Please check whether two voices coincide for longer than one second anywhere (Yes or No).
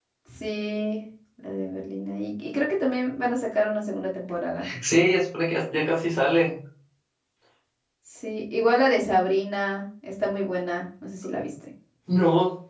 No